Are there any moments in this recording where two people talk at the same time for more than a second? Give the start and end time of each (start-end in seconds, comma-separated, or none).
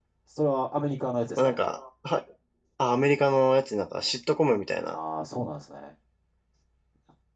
none